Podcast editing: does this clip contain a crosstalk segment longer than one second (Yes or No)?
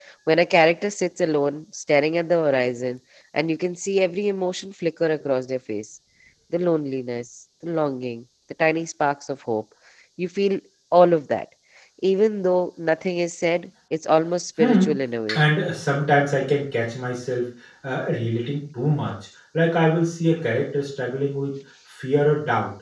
No